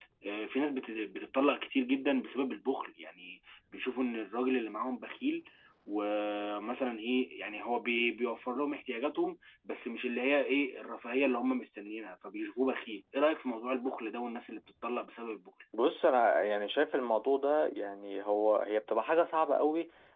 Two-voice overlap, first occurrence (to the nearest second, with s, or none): none